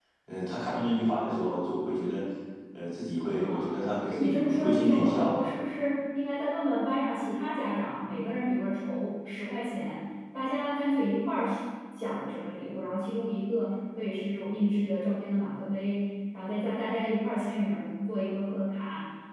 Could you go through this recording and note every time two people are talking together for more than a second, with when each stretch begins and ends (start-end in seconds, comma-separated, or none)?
3.4-5.4